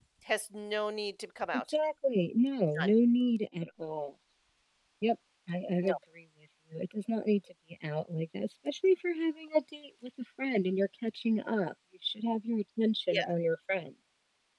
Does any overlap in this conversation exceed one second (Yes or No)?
No